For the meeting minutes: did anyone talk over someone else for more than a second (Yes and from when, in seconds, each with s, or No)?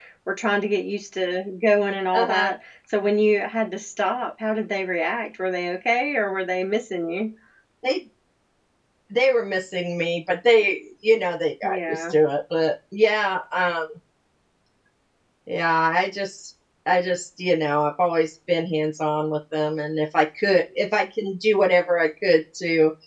No